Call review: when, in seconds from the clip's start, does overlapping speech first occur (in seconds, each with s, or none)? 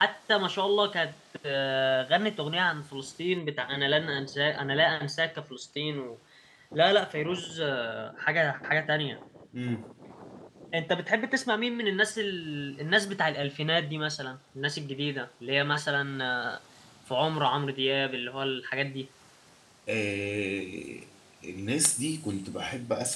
none